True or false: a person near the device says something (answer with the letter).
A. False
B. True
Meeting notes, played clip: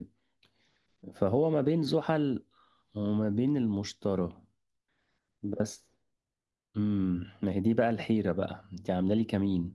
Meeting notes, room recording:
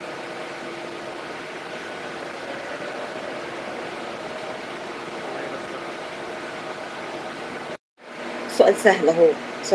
B